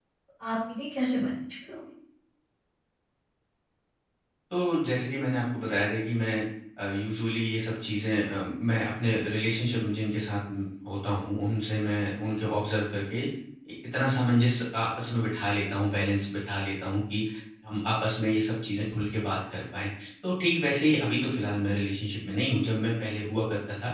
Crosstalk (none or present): none